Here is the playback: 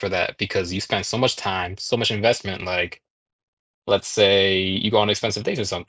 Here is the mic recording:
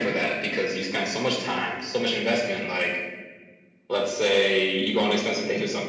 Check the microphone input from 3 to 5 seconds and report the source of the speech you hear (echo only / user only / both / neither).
echo only